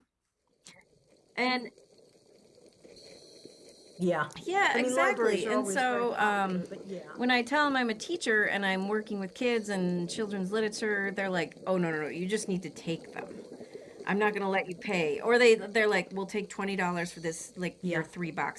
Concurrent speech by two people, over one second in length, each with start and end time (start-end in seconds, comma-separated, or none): 4.7-6.6